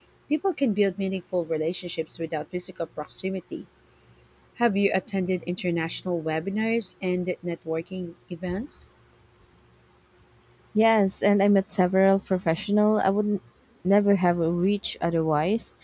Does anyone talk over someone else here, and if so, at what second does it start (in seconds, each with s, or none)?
none